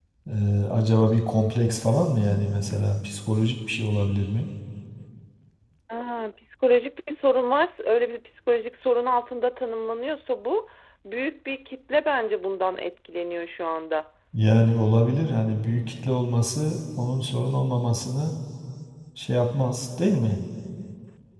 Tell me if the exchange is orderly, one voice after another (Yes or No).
Yes